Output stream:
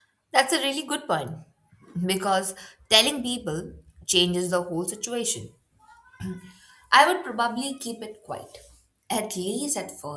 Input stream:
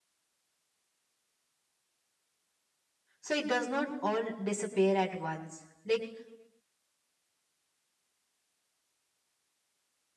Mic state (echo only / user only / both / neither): user only